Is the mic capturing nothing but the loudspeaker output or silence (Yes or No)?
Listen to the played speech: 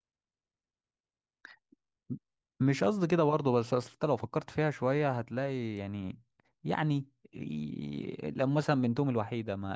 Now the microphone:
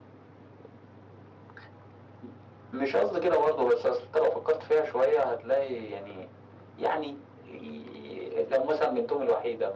Yes